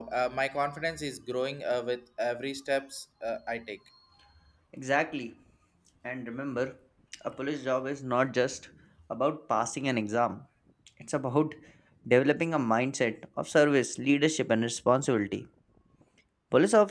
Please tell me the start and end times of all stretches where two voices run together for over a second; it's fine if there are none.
none

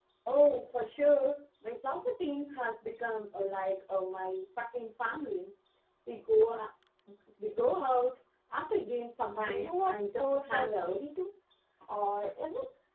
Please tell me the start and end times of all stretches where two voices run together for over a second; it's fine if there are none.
9.4-11.0

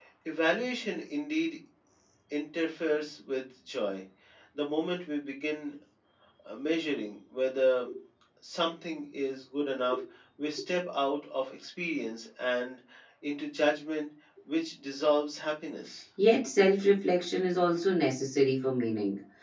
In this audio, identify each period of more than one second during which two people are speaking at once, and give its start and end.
none

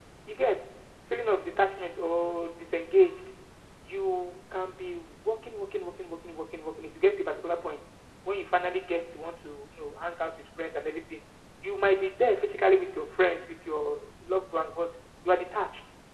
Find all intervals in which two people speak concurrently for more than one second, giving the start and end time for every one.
none

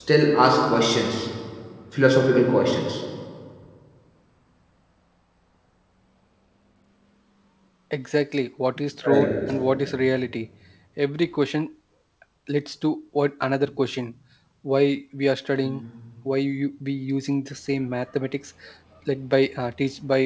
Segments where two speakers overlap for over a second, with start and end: none

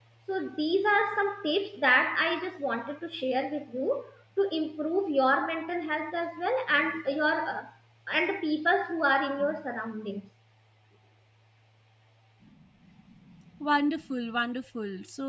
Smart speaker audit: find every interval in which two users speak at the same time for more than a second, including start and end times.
none

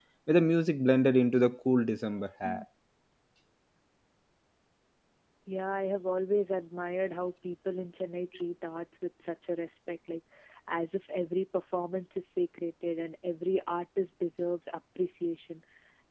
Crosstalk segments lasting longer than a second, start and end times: none

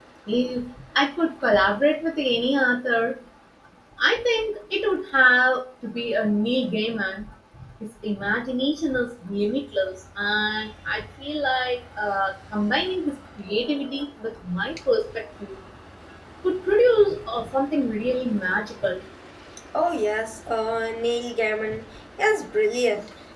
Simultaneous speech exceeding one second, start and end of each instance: none

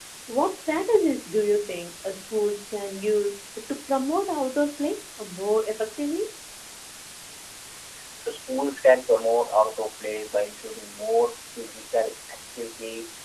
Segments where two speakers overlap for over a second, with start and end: none

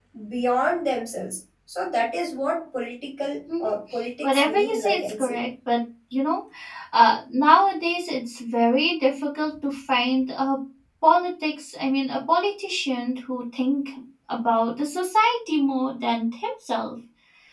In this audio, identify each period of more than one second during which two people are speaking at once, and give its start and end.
4.2-5.4

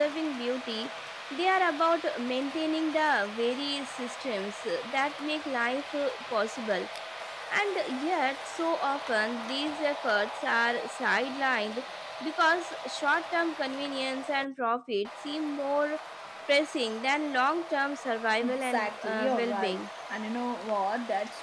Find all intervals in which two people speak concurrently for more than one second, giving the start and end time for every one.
18.4-19.8

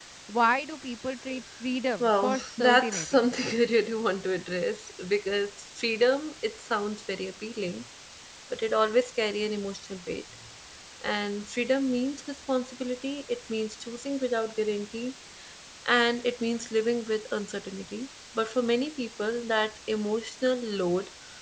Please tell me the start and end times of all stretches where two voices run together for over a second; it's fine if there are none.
2.0-3.3

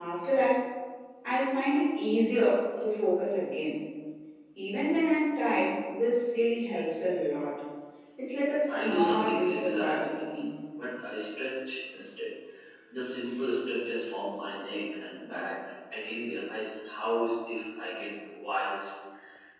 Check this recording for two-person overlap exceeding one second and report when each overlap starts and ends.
8.7-10.2

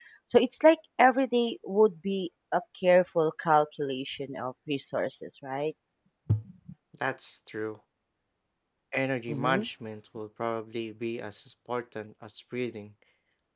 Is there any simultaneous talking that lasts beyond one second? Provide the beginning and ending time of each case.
none

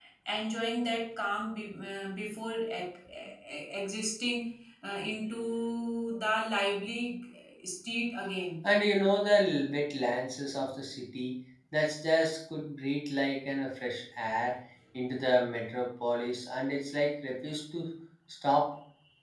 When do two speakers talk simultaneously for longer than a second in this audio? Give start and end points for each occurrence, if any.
none

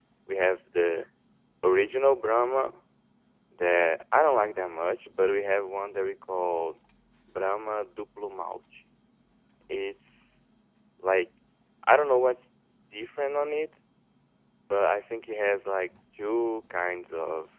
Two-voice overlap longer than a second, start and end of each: none

